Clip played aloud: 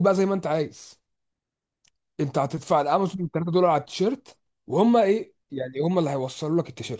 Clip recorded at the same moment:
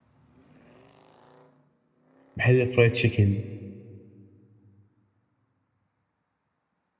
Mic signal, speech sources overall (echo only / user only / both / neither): user only